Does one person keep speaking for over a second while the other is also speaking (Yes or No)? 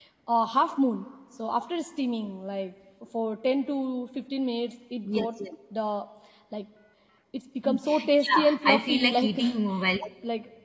Yes